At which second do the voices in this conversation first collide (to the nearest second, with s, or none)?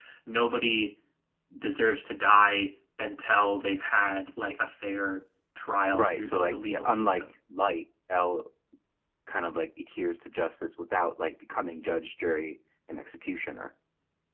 6 s